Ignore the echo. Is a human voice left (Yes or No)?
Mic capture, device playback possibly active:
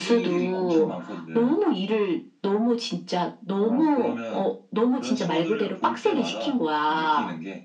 Yes